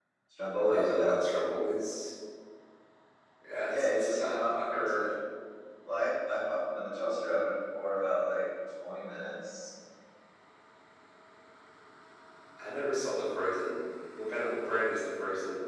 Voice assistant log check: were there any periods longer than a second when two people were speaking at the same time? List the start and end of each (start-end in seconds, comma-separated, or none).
3.7-5.1